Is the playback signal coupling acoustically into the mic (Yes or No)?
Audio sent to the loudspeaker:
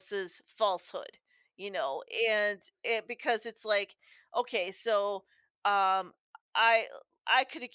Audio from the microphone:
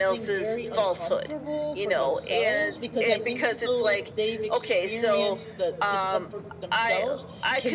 Yes